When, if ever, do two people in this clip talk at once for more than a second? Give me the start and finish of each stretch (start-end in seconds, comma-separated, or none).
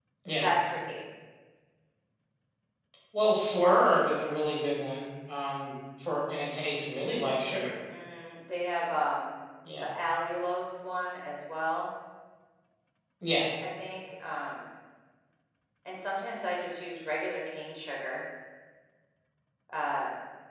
none